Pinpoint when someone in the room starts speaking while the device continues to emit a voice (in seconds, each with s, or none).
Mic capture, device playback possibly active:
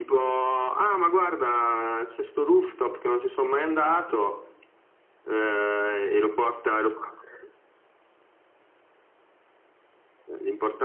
none